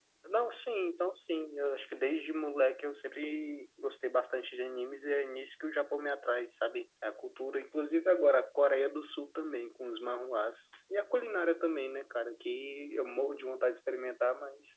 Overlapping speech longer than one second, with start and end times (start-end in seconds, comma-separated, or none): none